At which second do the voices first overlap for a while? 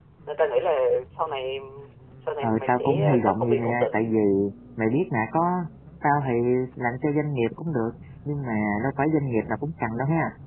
2.4 s

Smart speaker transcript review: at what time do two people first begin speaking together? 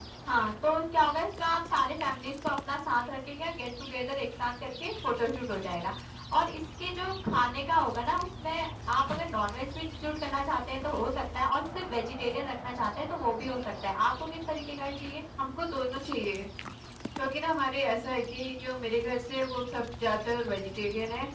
none

